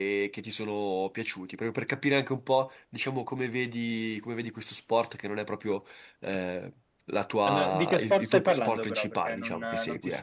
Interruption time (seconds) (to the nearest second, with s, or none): 7 s